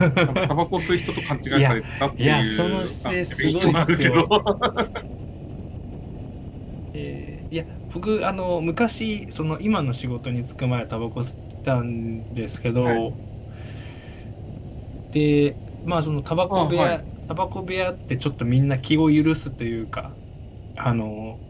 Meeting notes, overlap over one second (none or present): present